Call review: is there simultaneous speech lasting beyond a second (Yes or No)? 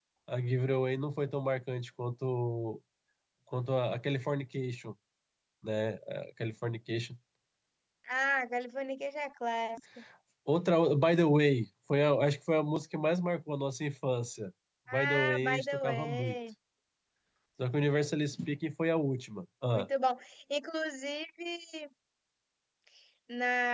Yes